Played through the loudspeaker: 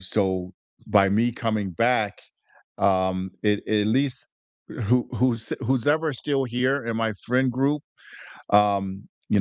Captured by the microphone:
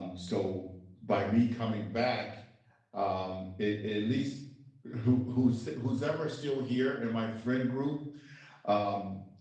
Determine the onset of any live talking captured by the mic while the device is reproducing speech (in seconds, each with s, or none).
none